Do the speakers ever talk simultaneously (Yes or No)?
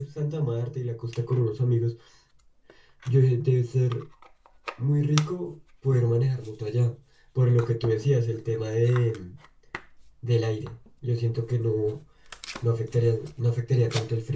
No